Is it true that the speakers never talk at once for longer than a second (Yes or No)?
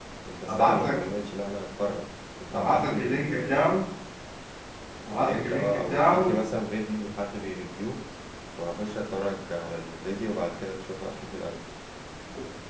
No